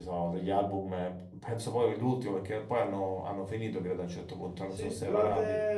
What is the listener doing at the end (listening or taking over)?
taking over